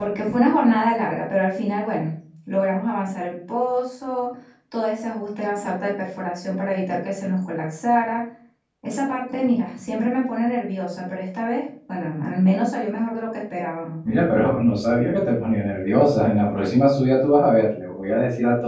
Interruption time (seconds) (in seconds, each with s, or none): none